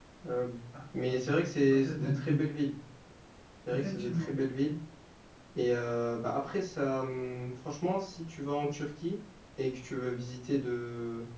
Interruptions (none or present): present